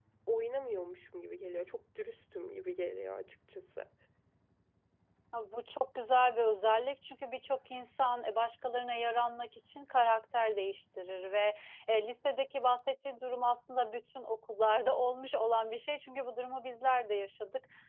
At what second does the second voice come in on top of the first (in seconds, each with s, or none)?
none